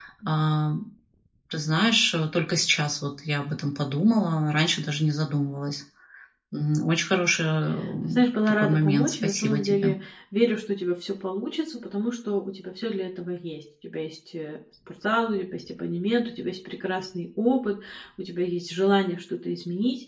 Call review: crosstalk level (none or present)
present